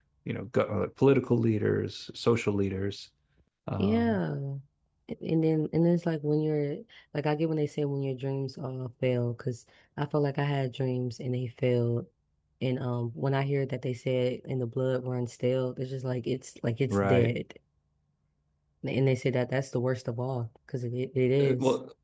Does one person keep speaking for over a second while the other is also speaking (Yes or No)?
No